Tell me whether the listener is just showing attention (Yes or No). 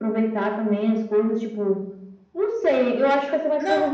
Yes